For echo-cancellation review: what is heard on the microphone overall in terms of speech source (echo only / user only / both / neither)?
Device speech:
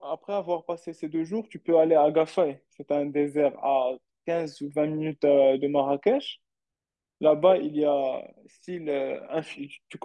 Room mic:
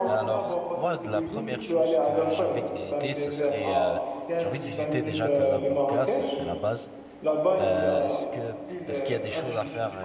both